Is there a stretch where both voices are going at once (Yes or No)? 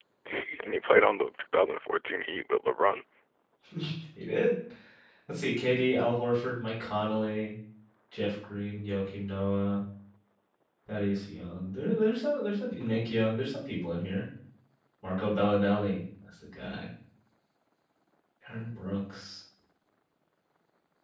No